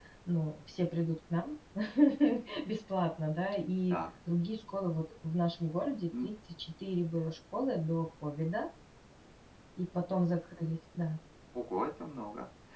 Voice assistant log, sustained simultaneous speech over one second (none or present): none